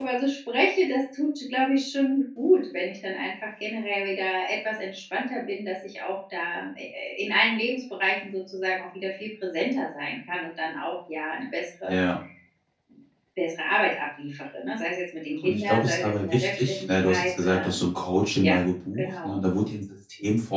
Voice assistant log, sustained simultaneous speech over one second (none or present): present